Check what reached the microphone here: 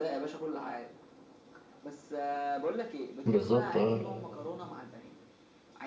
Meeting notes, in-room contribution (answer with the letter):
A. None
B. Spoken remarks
B